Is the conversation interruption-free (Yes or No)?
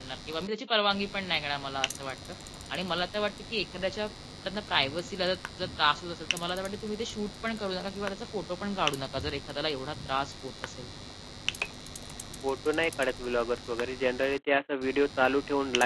Yes